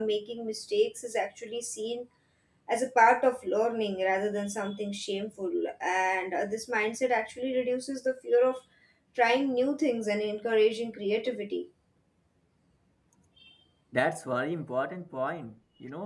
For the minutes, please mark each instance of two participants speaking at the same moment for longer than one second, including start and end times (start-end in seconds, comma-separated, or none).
none